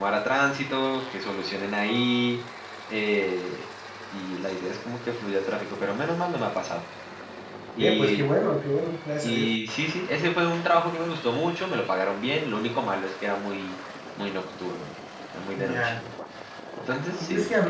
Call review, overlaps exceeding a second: none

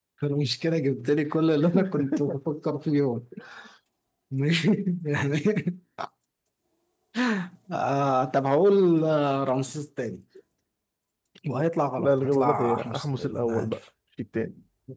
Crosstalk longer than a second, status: present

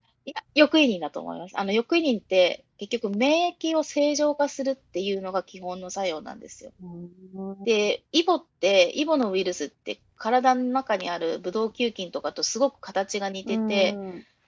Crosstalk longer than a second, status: none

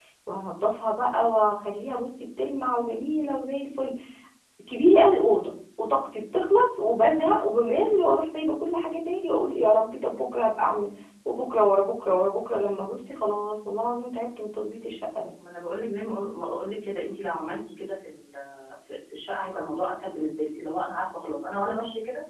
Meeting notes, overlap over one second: none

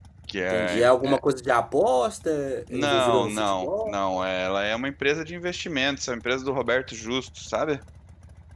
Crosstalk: present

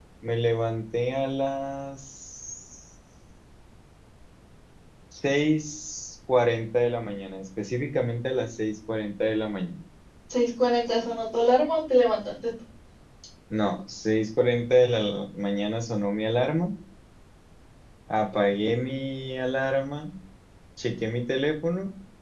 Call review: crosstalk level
none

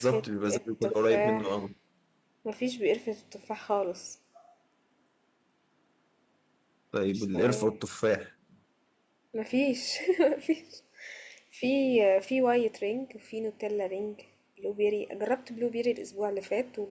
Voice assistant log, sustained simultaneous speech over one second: present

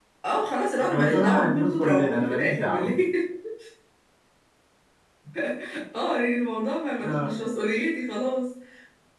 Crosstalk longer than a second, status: present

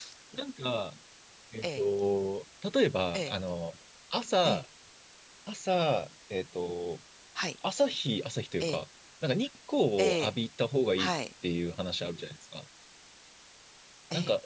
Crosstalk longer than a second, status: none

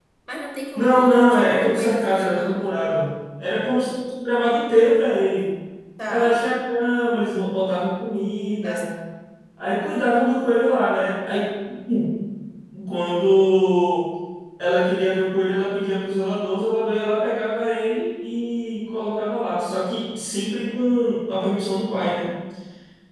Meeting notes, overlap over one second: present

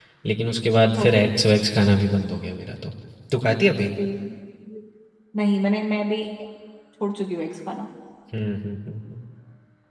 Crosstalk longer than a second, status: none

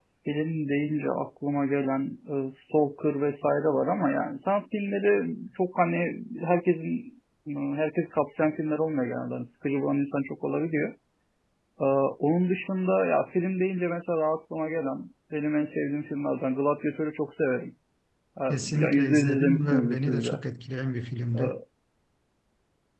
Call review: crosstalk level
present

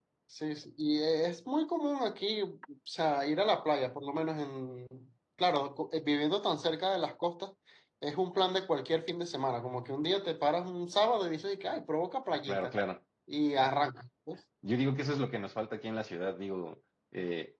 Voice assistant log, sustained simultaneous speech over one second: none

